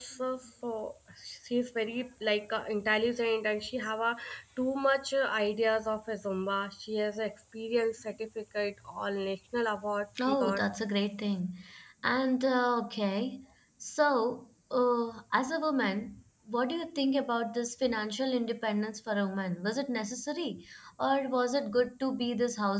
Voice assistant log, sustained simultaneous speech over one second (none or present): none